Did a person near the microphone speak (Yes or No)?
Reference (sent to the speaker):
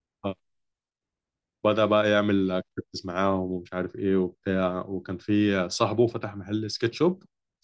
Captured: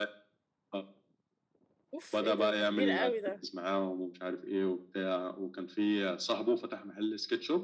Yes